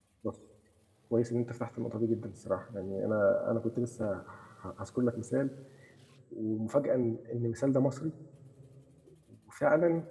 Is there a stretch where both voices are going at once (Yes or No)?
No